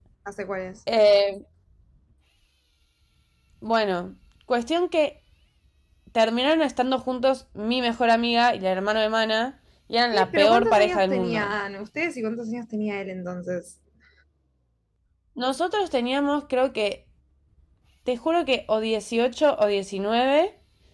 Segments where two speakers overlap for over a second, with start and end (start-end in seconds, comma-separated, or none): 10.1-11.5